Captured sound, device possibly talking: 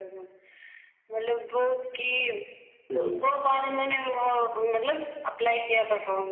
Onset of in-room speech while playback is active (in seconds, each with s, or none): 2.8 s